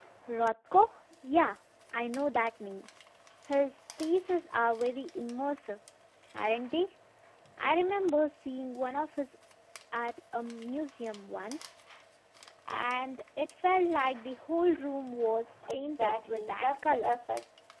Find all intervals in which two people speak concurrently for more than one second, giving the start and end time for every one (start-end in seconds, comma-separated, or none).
15.7-17.1